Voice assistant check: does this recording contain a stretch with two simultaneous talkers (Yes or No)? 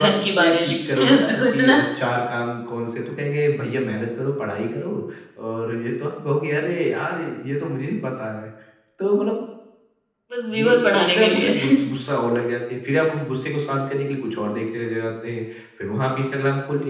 Yes